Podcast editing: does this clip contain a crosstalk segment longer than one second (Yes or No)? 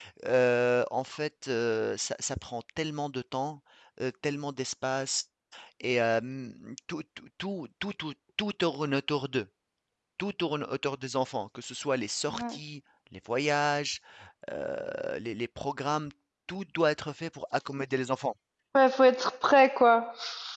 No